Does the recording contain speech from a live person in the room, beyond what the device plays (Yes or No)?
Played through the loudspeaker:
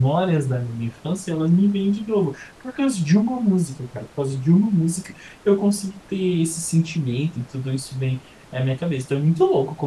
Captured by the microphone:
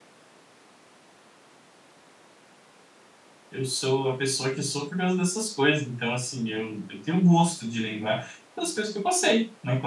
Yes